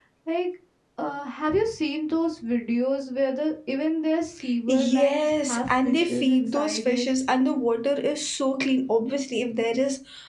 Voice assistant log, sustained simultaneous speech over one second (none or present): present